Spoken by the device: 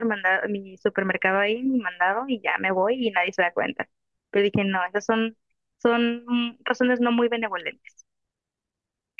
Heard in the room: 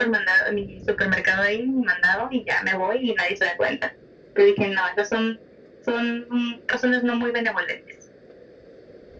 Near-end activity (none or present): none